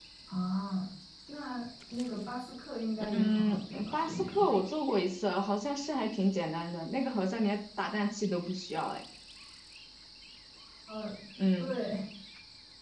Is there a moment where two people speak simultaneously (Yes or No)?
Yes